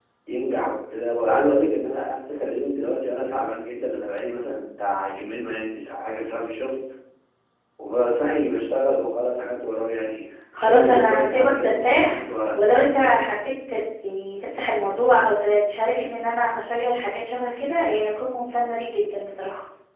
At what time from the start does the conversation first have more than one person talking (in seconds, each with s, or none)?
10.6 s